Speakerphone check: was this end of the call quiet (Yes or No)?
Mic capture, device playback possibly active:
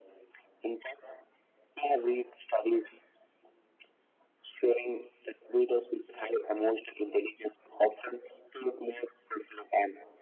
Yes